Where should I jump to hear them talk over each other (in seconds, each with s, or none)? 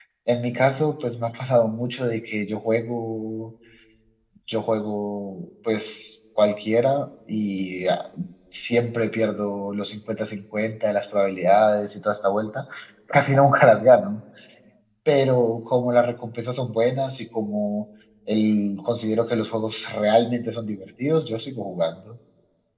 none